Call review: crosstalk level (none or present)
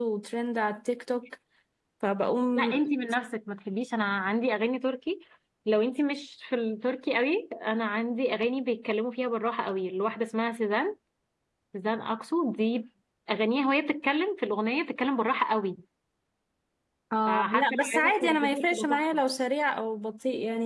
present